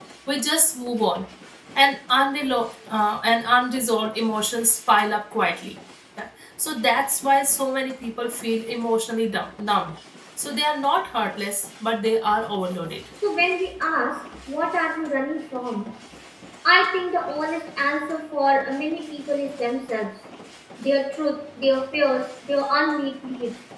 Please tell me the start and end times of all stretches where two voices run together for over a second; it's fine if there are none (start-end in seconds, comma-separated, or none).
none